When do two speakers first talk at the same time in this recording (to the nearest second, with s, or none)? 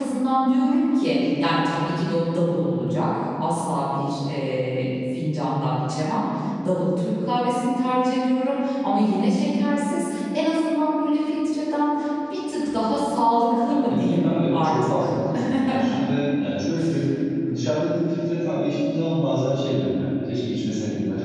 14 s